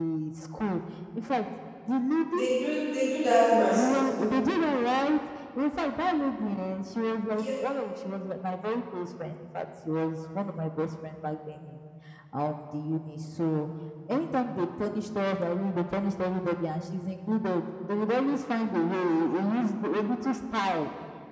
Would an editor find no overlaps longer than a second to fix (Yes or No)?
Yes